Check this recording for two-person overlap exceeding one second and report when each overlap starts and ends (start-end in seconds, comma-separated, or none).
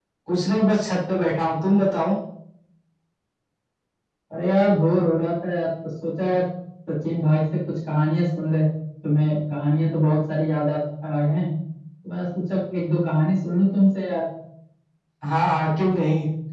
none